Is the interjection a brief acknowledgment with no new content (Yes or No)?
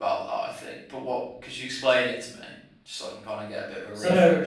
No